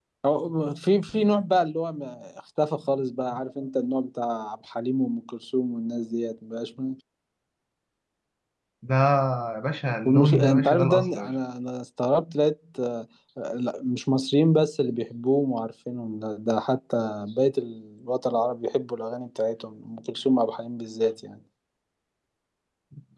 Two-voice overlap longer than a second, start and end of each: 10.0-11.3

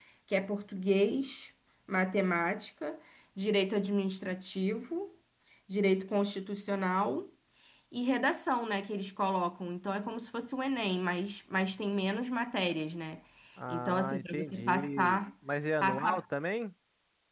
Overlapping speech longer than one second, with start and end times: 13.7-15.2

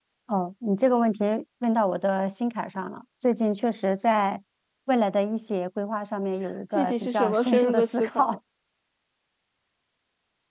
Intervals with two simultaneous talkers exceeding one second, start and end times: 6.7-8.4

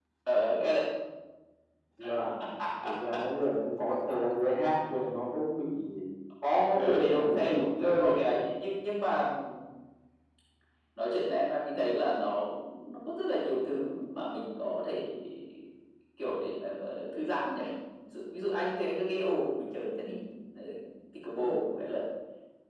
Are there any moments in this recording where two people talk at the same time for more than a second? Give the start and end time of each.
6.5-8.3

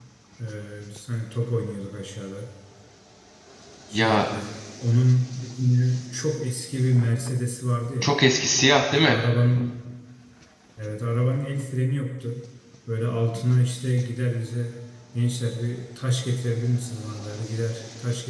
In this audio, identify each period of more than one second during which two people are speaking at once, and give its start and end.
none

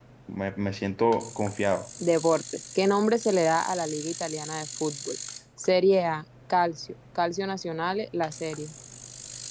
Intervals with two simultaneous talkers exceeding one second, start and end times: none

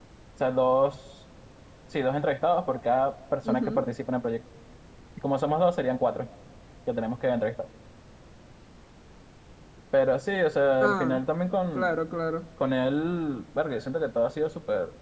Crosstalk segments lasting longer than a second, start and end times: none

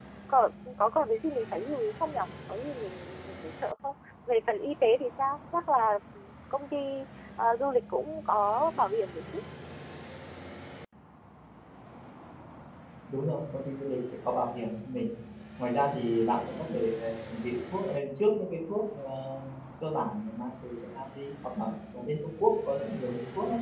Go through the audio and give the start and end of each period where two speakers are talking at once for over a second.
none

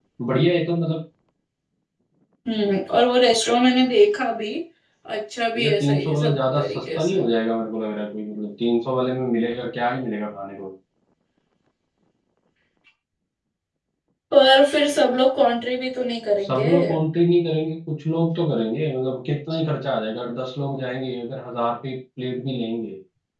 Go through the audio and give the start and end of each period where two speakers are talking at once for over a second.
5.6-7.2

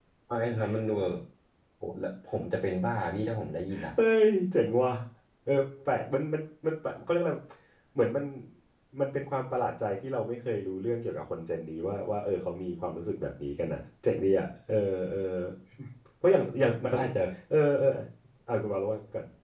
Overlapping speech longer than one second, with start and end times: none

